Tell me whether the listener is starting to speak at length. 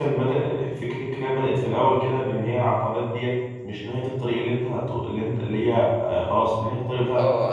Yes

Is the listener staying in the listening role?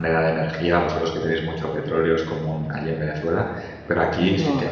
Yes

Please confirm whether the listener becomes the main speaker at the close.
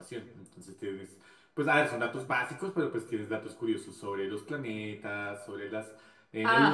No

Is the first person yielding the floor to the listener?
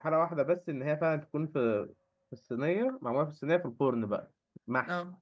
No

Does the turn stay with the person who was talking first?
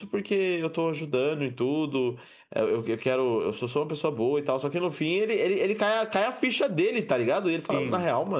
Yes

